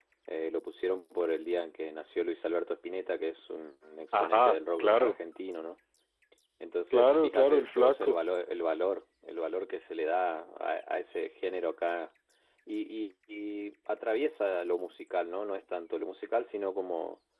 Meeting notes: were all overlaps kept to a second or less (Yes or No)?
No